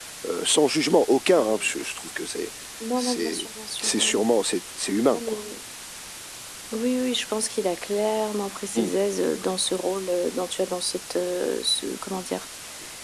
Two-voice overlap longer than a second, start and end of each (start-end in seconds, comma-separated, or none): none